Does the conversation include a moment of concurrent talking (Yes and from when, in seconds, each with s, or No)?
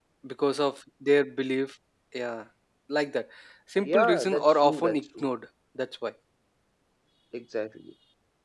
Yes, from 3.8 s